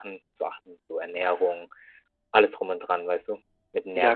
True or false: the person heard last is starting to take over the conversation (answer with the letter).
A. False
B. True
B